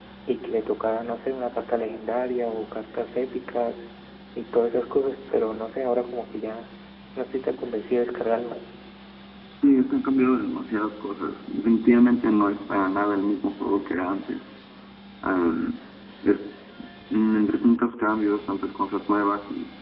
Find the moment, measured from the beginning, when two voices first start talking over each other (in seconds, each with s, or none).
none